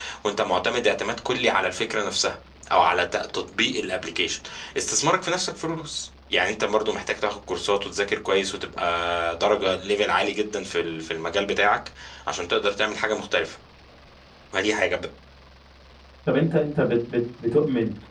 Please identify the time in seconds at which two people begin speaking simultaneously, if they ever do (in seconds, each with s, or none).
none